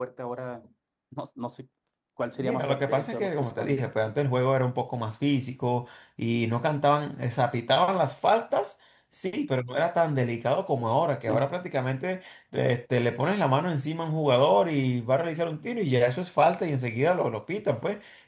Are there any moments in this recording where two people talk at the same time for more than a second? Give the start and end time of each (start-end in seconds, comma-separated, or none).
2.4-3.8